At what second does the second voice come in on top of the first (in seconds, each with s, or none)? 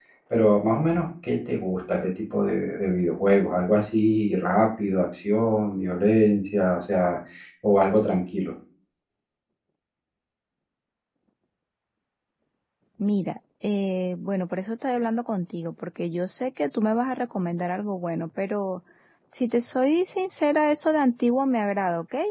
none